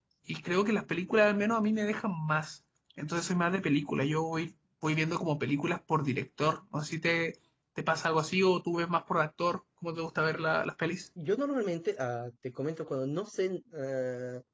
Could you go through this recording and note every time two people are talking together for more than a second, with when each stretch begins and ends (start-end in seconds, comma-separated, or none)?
none